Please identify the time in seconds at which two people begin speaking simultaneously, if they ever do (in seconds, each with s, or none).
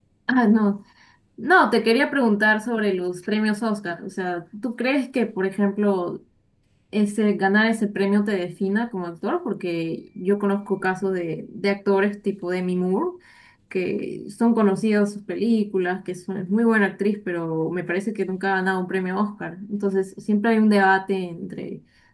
none